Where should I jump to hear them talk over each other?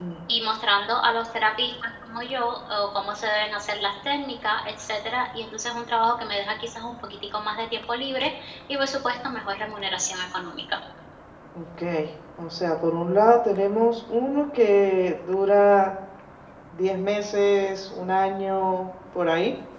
none

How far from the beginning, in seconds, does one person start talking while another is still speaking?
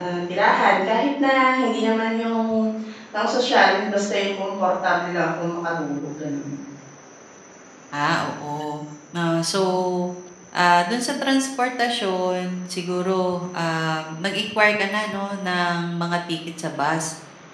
none

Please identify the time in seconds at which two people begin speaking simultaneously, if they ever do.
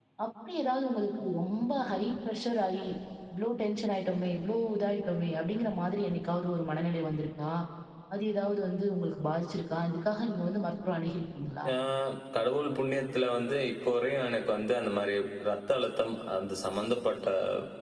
none

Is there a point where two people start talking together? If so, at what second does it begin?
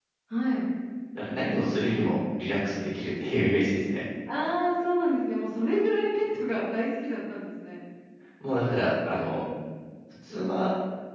none

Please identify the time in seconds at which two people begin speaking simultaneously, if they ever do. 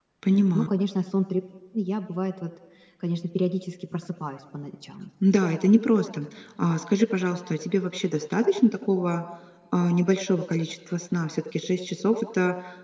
none

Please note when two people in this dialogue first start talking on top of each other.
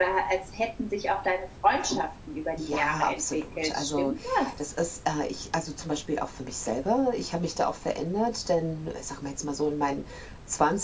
2.5 s

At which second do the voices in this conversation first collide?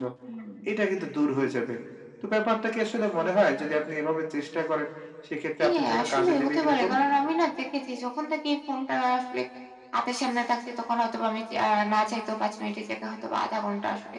5.6 s

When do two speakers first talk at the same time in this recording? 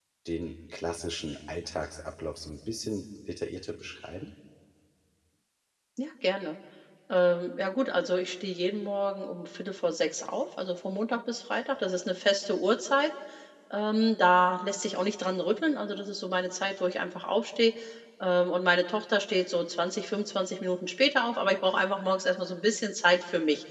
none

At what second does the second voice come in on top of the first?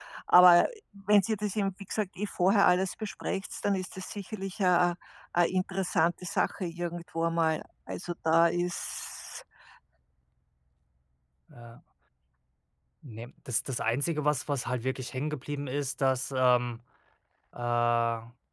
none

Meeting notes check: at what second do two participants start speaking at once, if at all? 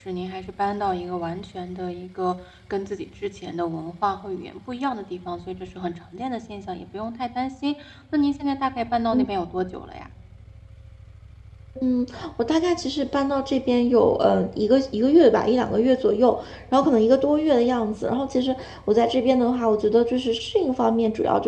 none

